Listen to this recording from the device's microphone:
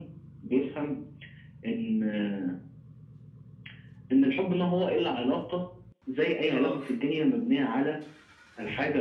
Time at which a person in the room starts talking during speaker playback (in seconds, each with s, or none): 6.5 s